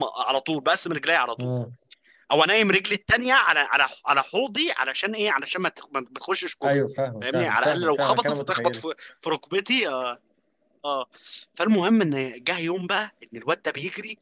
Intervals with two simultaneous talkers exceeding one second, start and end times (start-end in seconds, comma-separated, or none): 7.2-8.8